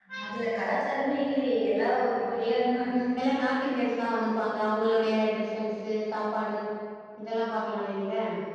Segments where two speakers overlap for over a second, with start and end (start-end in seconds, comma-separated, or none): none